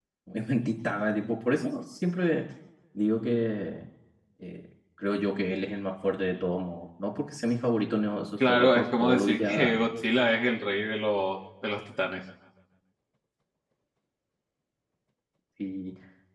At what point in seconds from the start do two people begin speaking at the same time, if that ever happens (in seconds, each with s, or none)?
8.4 s